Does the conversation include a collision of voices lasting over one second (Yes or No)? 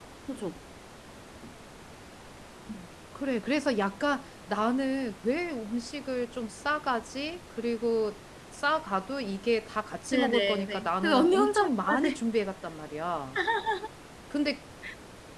Yes